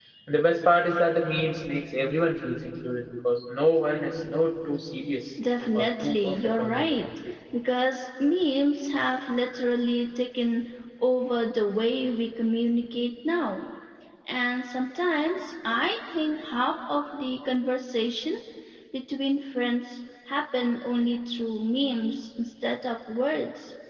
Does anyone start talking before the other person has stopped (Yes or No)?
Yes